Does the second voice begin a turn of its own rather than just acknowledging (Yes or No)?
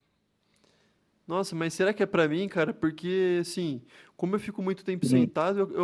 No